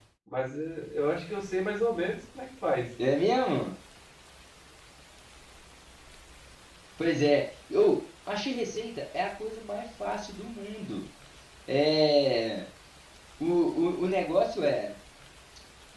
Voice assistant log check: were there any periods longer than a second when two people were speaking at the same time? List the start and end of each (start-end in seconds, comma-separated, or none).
none